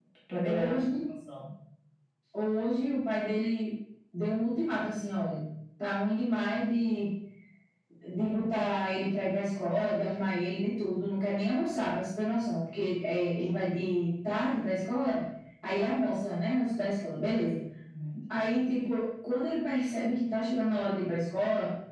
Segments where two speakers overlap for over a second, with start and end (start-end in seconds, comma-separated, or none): none